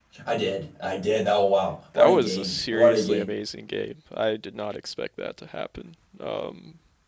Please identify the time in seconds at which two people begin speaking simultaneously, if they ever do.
1.9 s

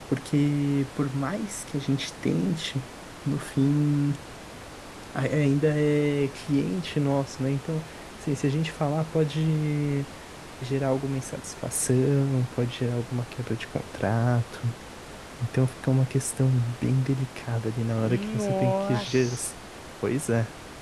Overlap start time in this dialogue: 18.0 s

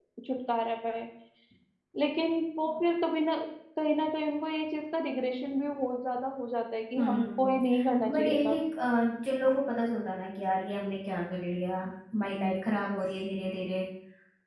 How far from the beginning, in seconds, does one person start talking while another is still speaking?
7.0 s

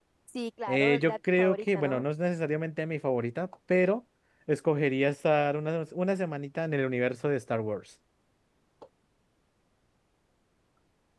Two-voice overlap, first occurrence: 0.7 s

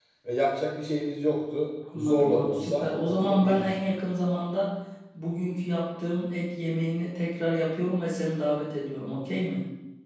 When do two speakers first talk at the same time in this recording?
1.9 s

